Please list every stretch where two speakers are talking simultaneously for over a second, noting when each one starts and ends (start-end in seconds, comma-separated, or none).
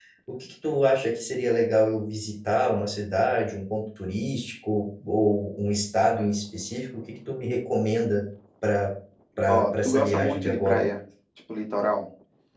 9.5-10.8